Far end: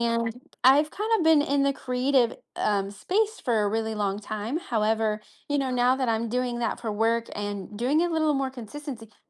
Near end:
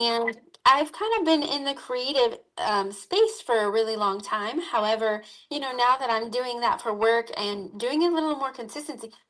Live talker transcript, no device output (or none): none